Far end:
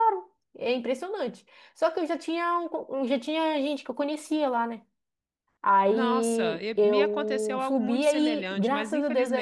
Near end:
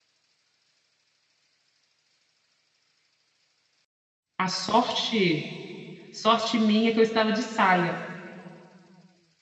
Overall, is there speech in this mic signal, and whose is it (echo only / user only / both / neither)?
user only